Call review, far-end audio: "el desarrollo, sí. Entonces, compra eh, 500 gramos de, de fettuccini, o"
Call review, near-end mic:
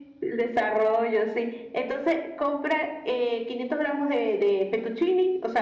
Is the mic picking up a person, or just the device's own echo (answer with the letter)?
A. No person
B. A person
A